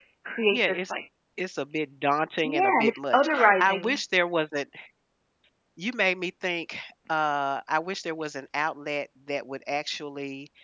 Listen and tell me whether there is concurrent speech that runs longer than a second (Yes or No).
Yes